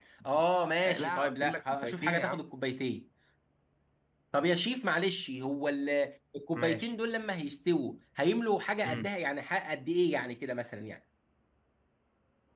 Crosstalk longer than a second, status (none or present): present